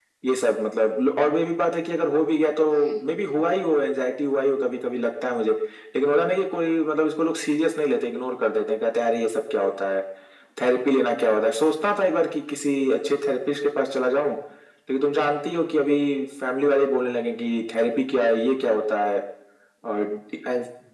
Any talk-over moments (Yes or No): No